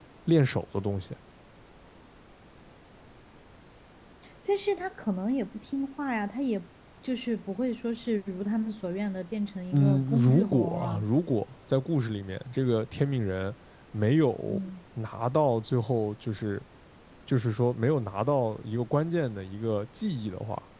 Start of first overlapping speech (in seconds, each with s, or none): 9.7 s